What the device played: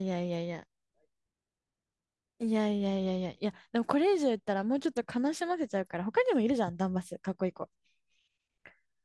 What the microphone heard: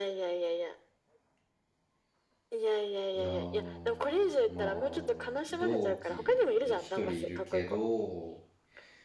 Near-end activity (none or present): present